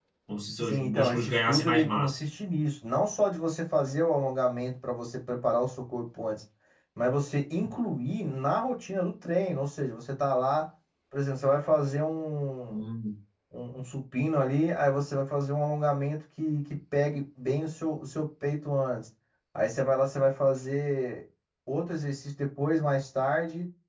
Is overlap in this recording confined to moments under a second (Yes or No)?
No